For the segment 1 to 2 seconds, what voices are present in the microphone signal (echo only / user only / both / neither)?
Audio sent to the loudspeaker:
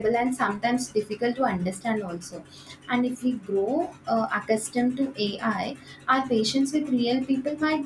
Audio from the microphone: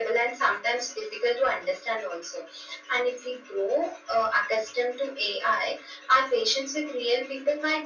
echo only